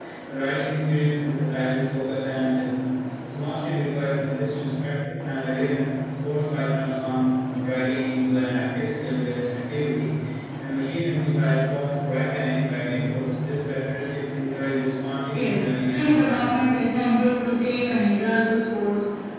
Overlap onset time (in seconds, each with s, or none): 15.3 s